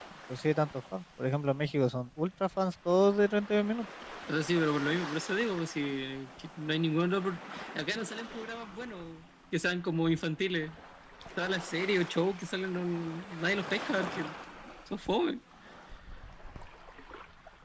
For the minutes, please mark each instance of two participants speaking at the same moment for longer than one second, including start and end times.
none

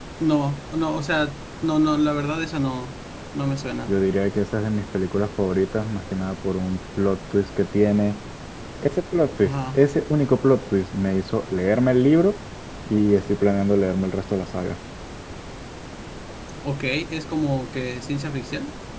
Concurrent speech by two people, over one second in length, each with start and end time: none

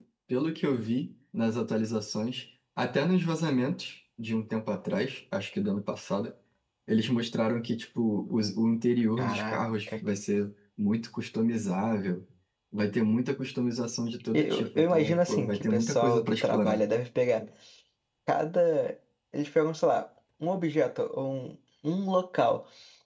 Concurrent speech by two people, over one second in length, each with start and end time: 14.3-16.8

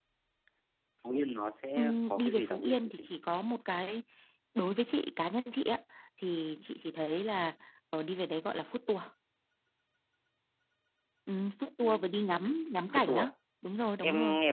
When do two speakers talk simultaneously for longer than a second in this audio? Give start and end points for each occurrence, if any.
1.8-3.1

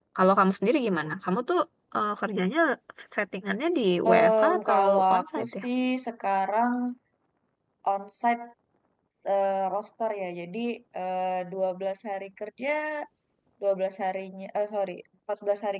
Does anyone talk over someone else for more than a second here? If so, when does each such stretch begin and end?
4.1-5.7

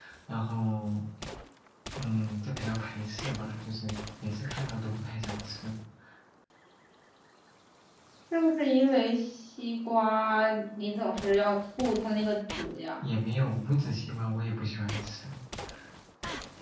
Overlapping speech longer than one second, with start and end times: none

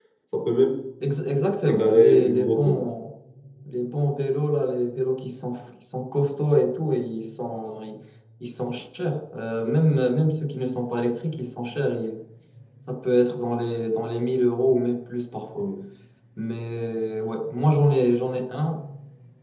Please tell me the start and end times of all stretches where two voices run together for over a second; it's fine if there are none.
1.6-2.9

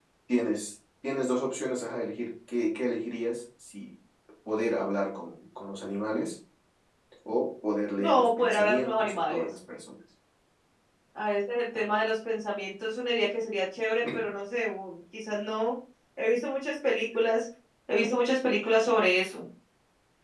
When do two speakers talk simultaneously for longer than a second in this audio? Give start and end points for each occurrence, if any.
8.0-9.5

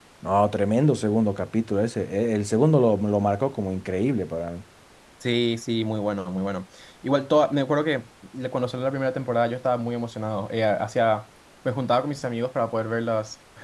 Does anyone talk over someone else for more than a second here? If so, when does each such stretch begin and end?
none

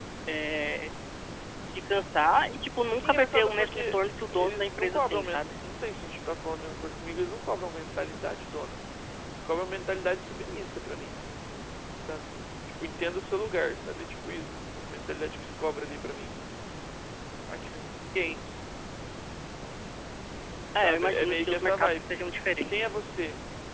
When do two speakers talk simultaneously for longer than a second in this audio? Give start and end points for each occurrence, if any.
3.0-5.4, 20.8-22.1

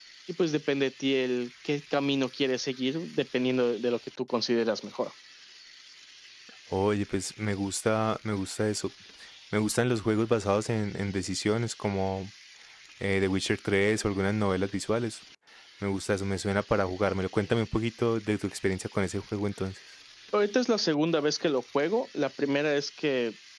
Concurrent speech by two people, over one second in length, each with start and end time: none

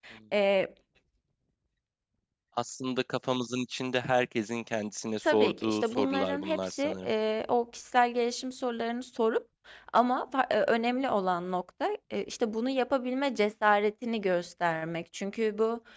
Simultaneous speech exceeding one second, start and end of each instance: 5.2-7.1

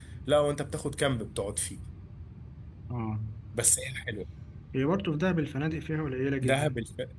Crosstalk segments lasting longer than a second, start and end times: none

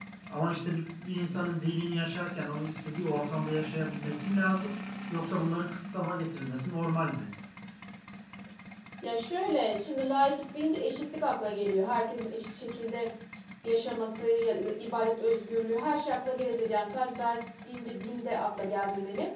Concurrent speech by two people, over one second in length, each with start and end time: none

